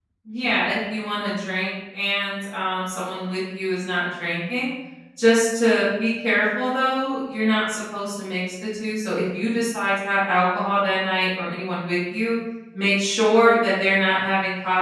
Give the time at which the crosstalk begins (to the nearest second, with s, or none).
none